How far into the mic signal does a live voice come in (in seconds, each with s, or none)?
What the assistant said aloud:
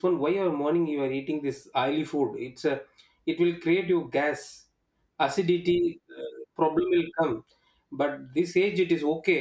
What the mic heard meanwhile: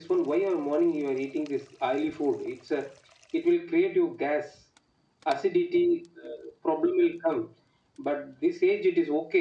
none